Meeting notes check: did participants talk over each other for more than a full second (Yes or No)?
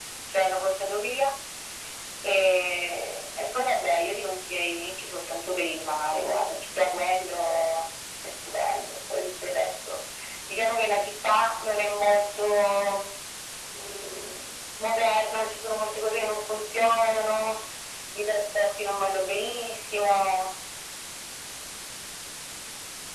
No